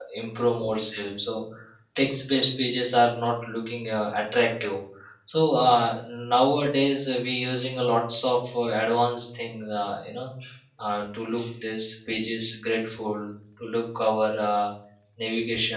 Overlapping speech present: No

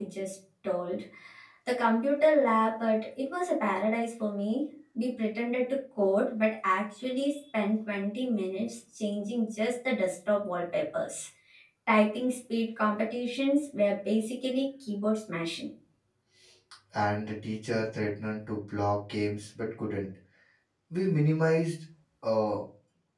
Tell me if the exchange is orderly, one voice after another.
Yes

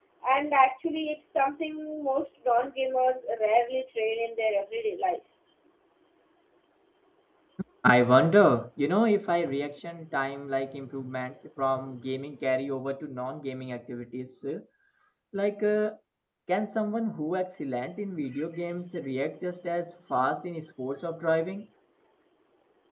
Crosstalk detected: No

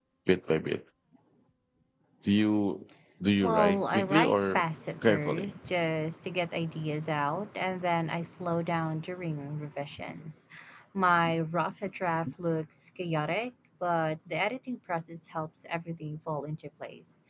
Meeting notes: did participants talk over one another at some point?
Yes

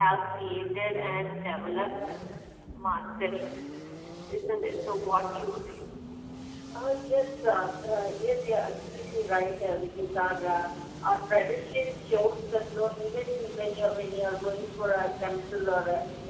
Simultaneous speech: No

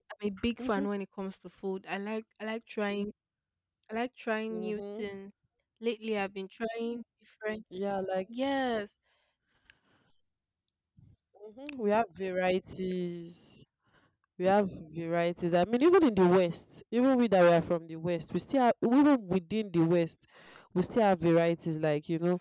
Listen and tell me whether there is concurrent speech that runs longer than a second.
No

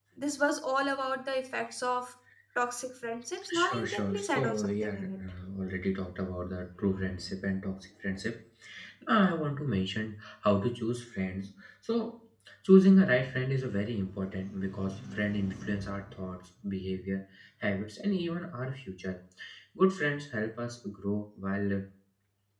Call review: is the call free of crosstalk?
No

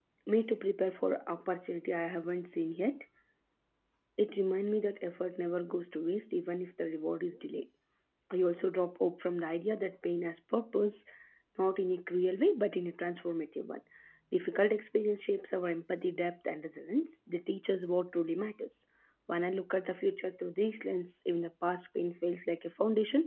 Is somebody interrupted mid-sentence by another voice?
No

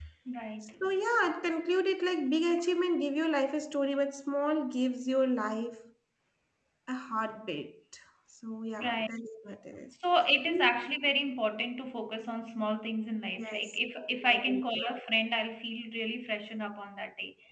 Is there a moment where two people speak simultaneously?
Yes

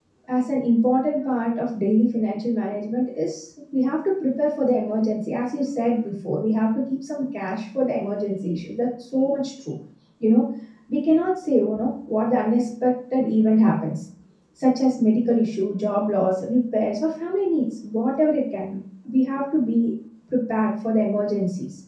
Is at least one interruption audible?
No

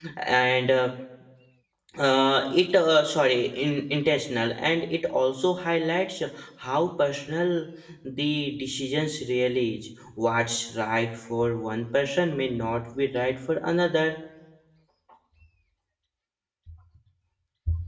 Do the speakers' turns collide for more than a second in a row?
No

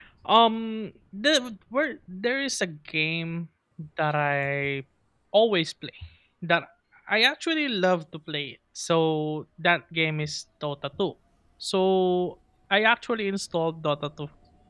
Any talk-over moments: No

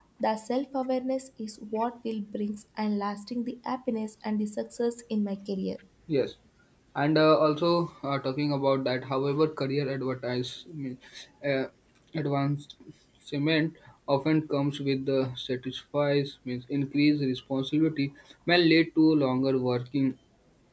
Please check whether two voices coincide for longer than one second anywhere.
No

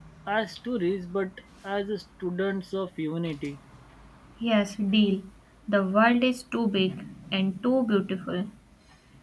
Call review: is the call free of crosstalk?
Yes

